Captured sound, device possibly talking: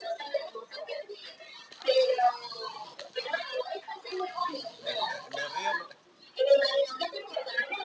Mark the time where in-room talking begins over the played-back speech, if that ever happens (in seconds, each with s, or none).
4.8 s